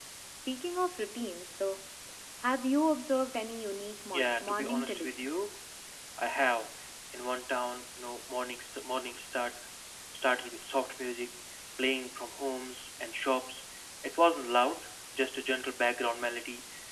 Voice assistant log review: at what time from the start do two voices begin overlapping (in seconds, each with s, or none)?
4.1 s